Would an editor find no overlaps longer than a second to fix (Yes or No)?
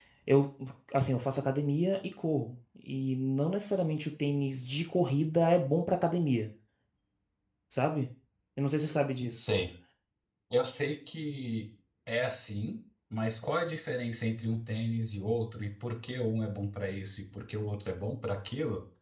Yes